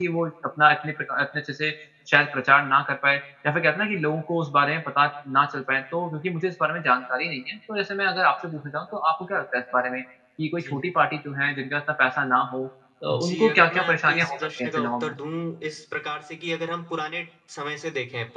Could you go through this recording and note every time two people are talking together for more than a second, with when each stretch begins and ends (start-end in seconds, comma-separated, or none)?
13.1-15.1